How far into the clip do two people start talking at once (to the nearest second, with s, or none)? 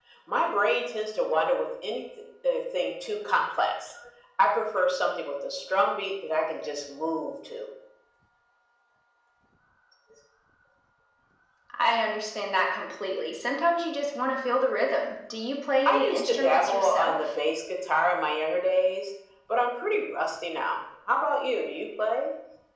16 s